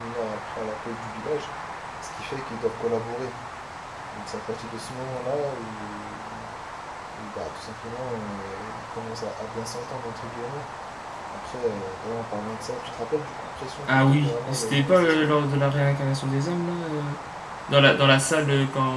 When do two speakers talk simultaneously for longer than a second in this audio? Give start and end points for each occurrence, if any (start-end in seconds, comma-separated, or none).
13.9-15.4